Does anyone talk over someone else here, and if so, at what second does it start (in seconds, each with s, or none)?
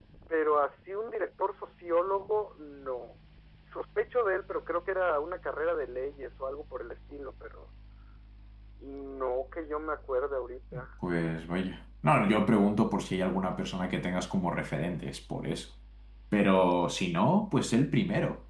none